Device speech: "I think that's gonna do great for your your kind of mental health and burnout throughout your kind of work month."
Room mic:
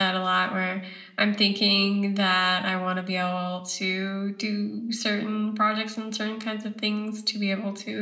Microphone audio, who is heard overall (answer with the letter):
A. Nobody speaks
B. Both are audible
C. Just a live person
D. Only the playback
C